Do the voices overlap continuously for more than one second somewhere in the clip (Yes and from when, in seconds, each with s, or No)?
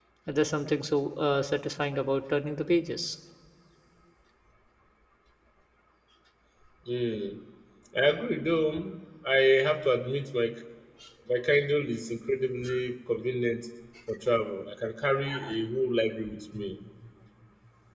No